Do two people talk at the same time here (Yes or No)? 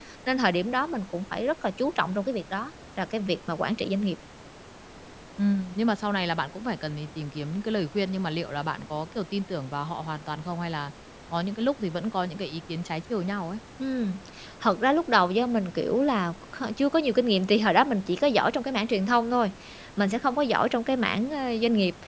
No